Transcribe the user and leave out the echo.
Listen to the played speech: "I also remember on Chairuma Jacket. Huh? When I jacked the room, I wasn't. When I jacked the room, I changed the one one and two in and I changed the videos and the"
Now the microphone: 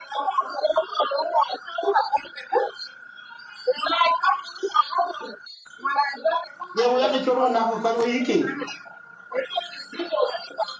ye mu ya ke chol wa na ko ko yi ki

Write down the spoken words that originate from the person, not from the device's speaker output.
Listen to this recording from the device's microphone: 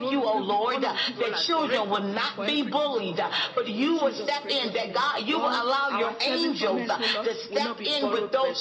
none

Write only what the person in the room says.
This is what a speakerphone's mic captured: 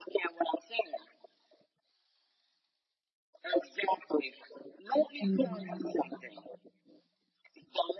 Mhm.

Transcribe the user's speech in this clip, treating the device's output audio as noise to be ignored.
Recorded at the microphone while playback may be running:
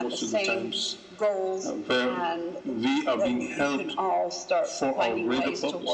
none

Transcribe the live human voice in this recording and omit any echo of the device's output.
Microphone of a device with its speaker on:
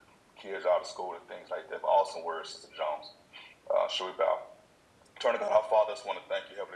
none

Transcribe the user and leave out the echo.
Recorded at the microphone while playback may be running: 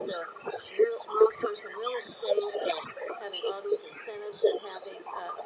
none

